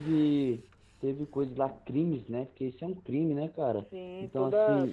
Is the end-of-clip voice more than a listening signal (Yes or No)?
Yes